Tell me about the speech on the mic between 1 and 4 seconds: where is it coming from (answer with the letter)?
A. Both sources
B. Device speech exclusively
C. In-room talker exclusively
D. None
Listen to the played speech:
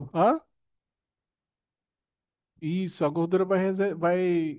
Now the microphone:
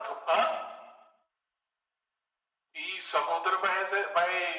B